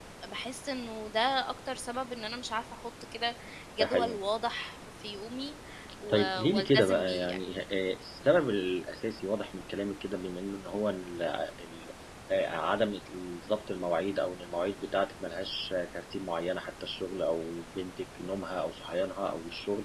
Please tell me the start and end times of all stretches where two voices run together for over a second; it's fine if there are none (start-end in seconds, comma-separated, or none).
6.1-7.4